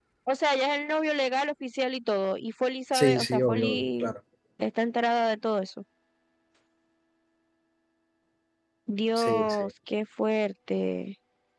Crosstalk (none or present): present